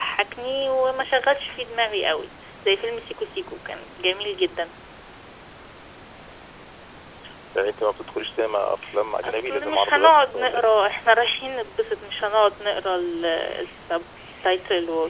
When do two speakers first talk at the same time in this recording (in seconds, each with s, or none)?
9.2 s